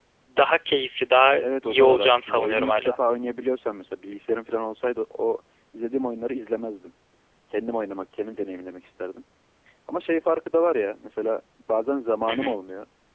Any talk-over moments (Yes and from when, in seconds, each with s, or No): Yes, from 1.4 s